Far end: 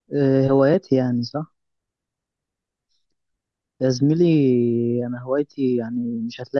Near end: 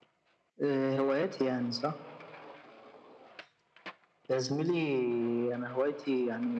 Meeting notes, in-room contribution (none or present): none